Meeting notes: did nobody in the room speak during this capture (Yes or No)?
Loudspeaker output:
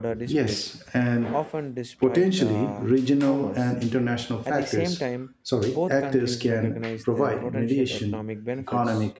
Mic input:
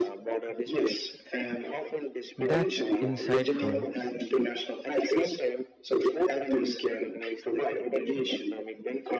No